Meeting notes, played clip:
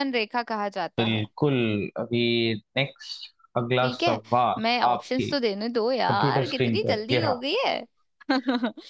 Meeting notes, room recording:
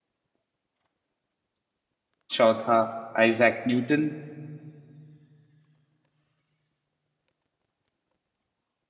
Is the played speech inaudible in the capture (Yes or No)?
Yes